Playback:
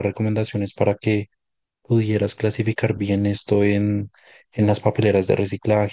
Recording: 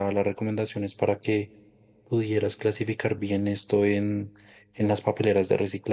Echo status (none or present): present